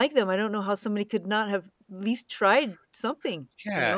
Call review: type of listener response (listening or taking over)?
taking over